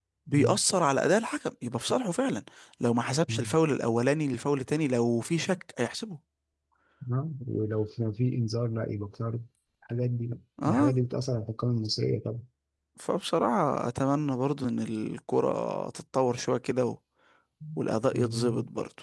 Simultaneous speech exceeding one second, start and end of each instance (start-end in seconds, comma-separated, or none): none